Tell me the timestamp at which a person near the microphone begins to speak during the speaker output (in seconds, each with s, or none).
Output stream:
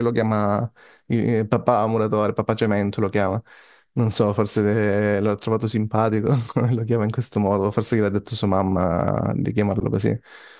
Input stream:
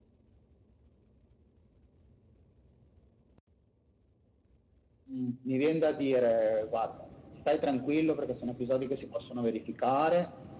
5.1 s